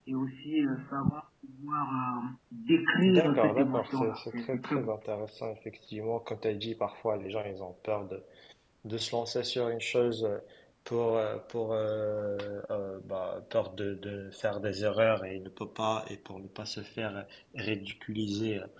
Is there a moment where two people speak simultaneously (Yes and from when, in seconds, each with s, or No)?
Yes, from 3.0 s